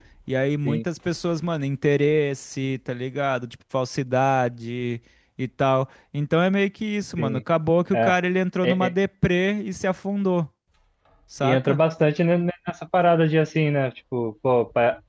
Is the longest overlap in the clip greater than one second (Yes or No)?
No